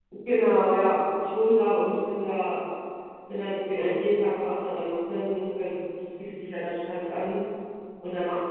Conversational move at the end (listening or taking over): listening